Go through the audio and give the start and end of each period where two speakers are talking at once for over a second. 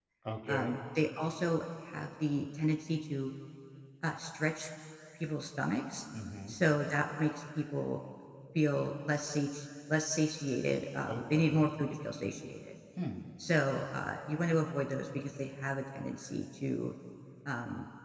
none

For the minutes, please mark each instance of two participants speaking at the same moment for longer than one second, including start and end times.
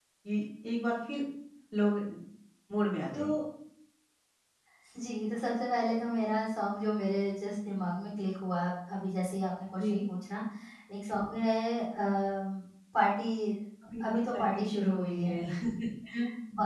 14.1-15.3

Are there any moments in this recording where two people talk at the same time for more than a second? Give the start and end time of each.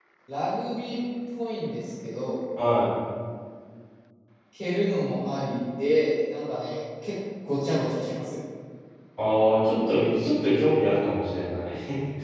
none

